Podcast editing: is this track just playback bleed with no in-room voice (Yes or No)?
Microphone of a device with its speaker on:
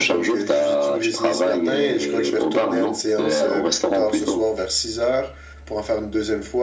No